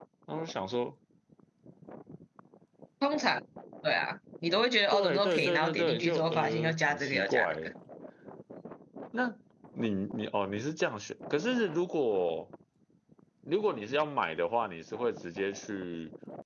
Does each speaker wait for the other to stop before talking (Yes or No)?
No